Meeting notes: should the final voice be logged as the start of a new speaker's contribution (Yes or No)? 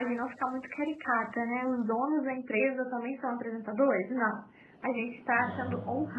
No